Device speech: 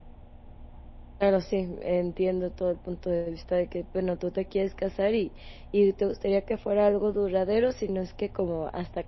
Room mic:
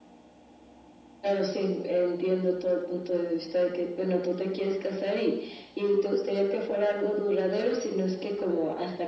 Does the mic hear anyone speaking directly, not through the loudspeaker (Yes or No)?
No